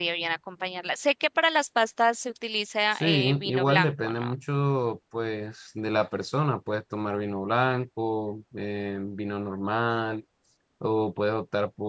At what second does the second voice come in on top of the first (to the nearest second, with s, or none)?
3 s